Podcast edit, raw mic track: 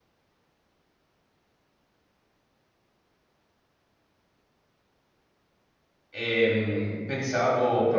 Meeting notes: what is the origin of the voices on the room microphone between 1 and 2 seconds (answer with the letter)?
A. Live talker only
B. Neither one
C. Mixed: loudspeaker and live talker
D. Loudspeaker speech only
B